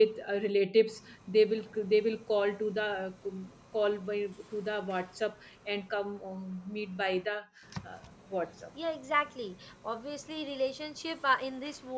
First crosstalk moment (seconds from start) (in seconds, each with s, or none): none